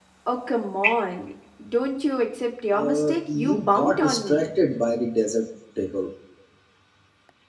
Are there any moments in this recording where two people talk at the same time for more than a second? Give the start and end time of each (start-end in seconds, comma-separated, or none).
2.8-4.5